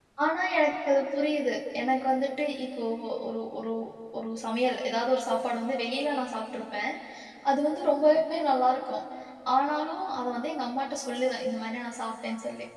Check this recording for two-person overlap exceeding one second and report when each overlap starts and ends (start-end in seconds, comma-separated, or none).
none